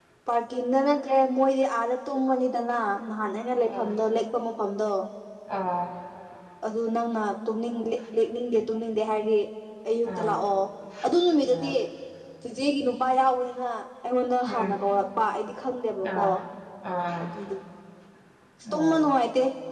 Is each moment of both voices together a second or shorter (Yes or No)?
Yes